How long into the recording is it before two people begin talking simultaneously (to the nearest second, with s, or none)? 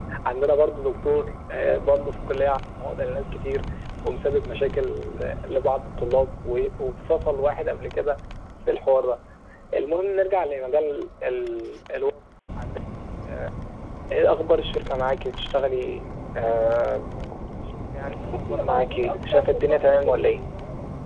18 s